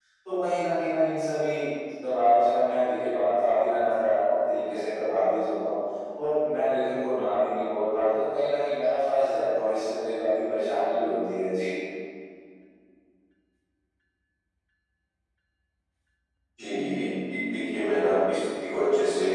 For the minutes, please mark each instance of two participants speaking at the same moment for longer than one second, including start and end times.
none

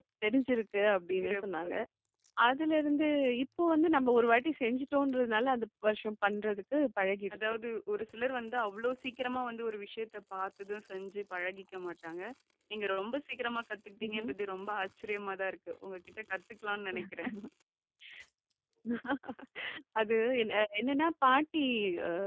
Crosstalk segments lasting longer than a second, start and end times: none

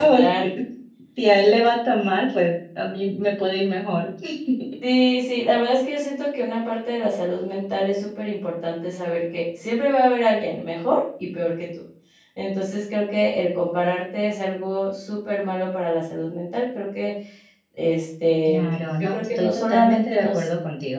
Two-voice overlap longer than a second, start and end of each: 19.0-20.4

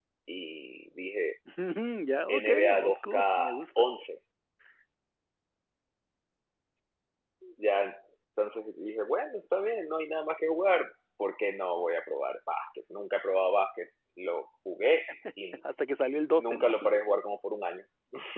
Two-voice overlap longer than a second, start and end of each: 2.3-3.6

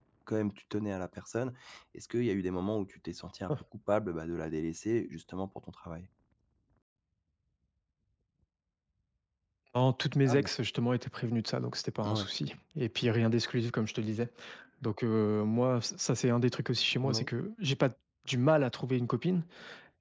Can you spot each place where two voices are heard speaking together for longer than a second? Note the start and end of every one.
none

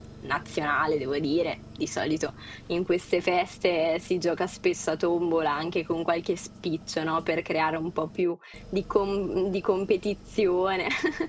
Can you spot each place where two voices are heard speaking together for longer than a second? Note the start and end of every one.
none

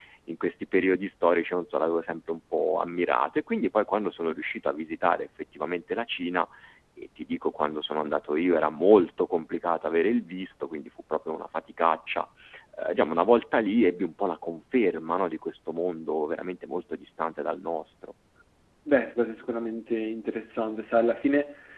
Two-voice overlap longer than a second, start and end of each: none

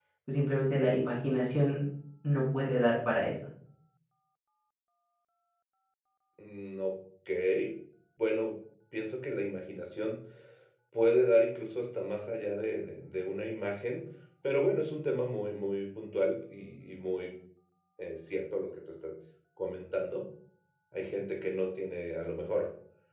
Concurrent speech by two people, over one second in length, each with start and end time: none

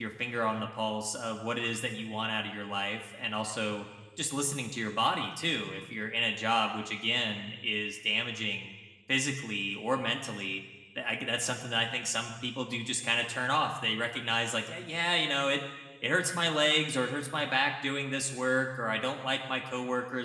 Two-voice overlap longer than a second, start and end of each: none

